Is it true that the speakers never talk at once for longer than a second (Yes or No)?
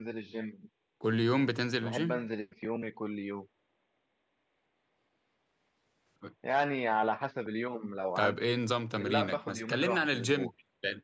No